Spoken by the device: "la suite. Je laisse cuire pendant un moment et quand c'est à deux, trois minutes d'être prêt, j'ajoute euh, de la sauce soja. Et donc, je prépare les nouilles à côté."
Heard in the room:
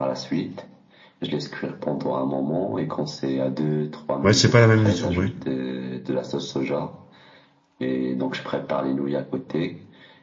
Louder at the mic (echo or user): user